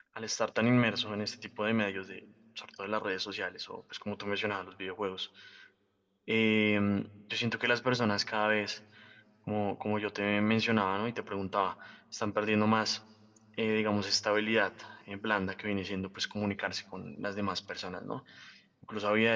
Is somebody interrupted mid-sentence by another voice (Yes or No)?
No